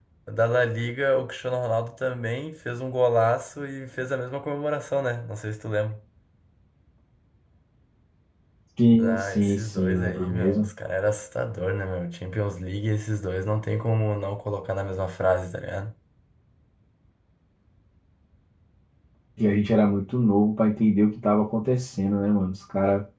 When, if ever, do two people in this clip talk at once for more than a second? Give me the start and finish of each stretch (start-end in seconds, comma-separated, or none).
9.0-10.7